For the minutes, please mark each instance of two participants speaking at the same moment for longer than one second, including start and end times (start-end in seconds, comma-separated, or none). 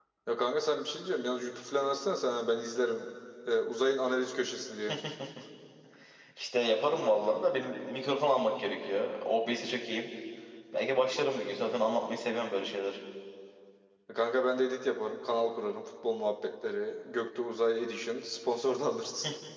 none